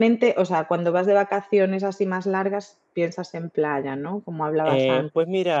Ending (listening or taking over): taking over